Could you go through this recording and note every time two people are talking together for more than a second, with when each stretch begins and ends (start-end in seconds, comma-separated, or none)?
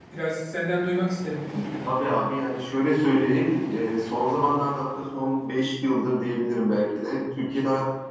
none